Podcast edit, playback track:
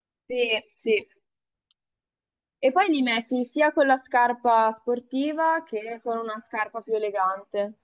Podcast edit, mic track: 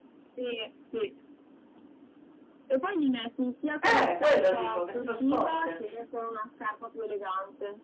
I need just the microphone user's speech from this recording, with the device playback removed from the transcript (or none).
Eh, quello dico, che sono scomode,